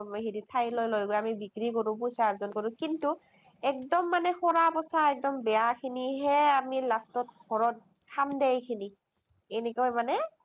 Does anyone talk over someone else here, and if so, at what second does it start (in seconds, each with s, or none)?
none